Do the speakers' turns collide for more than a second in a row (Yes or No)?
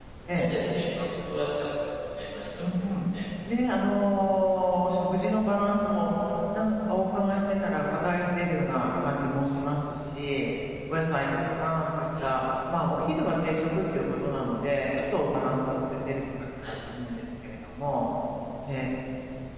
No